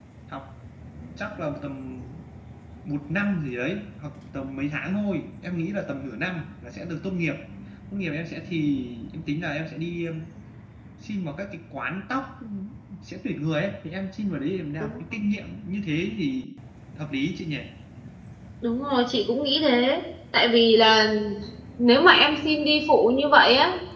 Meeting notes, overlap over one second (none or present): none